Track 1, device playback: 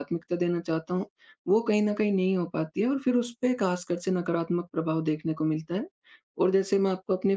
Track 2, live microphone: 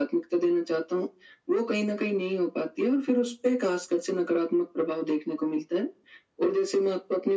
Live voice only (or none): none